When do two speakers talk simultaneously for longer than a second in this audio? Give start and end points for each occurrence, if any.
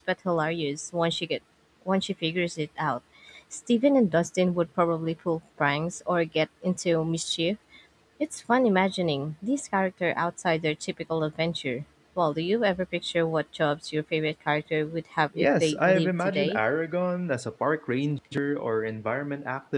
15.4-16.6

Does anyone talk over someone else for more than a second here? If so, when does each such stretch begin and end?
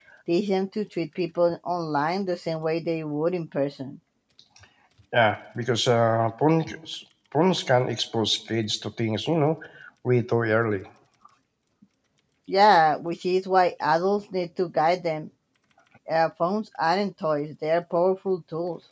none

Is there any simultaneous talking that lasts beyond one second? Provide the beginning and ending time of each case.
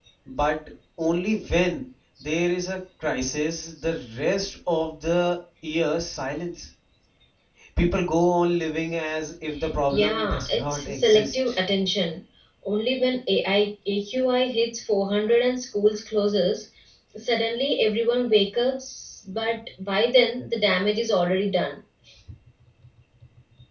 9.9-11.6

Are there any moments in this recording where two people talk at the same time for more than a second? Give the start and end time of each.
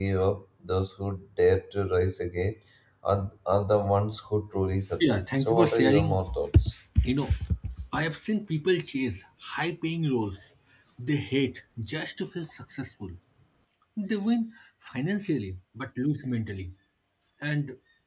5.0-6.2

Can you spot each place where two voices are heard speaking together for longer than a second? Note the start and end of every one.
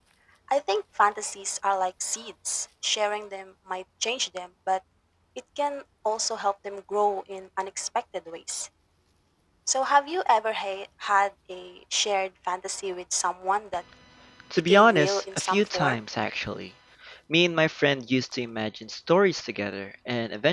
14.7-16.0

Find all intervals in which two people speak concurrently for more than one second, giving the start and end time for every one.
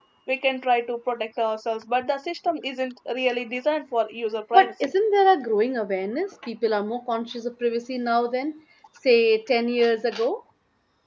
none

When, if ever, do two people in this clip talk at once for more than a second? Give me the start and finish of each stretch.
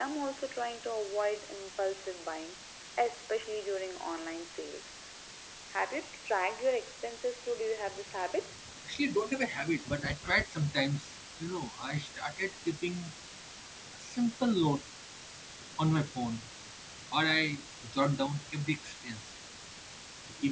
none

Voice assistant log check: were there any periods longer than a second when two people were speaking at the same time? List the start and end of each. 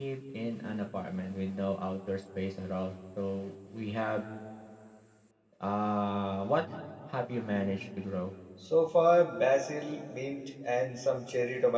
none

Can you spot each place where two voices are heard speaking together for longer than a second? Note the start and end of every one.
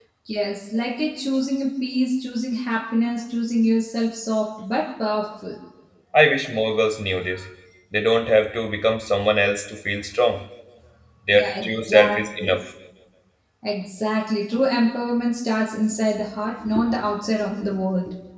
11.3-12.6

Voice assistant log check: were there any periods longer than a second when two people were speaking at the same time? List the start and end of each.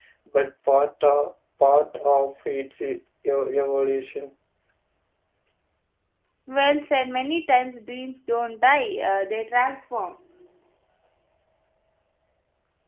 none

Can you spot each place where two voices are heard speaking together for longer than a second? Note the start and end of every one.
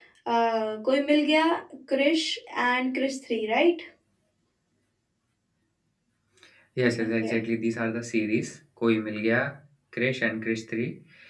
none

